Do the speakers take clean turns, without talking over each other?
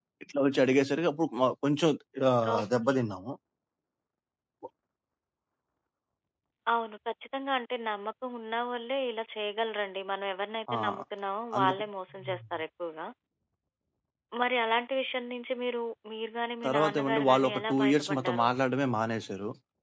No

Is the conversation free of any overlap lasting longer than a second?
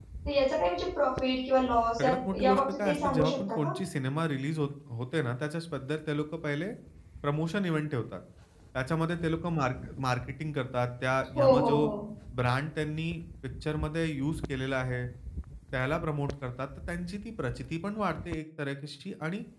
No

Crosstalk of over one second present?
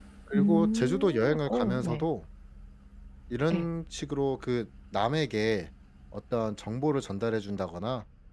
Yes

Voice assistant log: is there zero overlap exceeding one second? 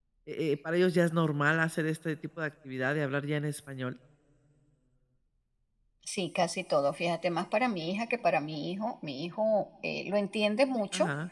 Yes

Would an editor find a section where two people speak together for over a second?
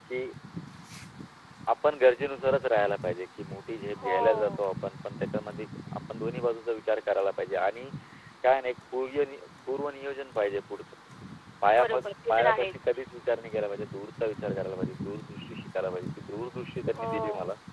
Yes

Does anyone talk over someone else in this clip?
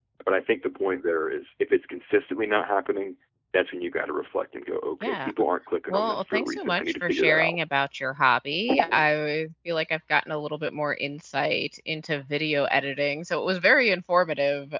Yes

